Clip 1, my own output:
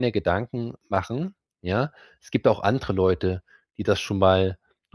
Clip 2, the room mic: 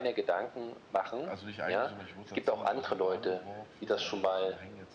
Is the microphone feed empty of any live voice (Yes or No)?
No